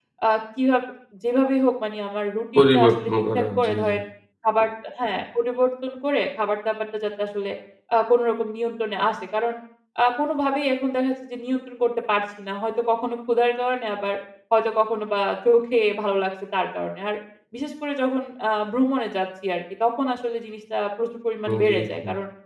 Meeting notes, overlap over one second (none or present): present